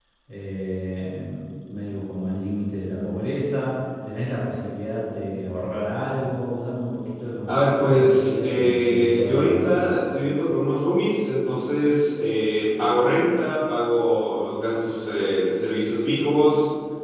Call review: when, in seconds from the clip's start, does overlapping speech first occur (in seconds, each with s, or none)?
7.5 s